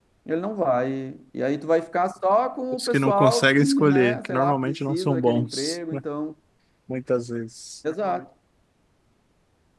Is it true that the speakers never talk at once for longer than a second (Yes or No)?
No